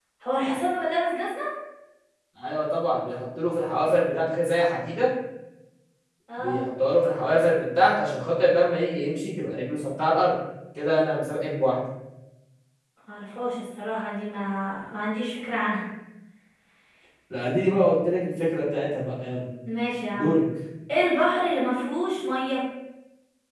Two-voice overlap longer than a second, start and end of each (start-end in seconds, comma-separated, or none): none